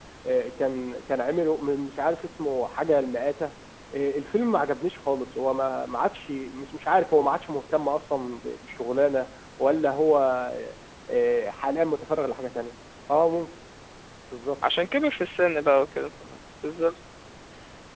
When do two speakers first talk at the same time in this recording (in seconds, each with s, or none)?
none